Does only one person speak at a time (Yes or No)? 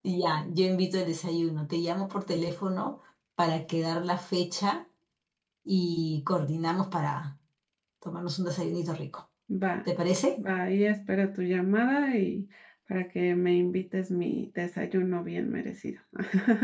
Yes